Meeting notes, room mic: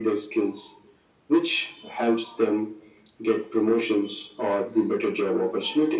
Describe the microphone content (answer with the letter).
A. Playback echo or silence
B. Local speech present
A